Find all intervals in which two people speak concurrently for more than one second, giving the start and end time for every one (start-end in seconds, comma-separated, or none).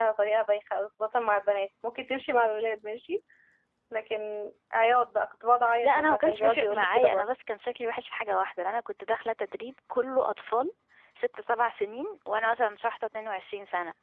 5.8-7.2